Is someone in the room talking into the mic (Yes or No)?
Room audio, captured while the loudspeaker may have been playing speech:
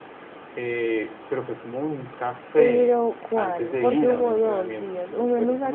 Yes